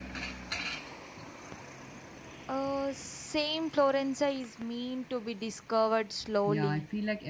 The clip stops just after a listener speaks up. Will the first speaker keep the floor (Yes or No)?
No